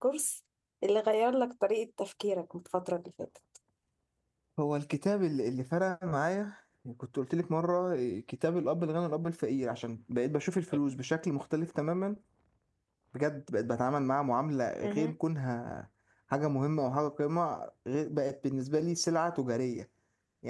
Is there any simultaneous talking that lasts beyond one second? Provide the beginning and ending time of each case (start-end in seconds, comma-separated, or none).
none